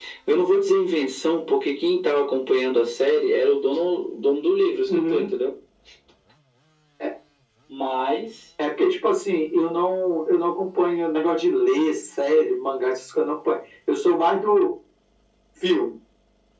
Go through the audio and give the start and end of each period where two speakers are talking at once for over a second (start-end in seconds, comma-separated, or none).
none